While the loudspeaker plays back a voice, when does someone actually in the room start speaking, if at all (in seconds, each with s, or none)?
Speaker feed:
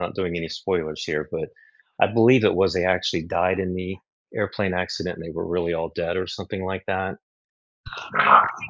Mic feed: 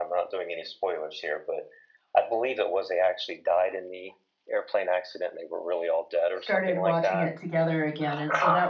6.4 s